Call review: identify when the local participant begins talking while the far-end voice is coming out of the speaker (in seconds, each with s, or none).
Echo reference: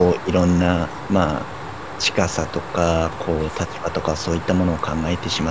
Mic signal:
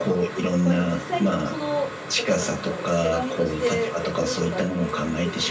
0.6 s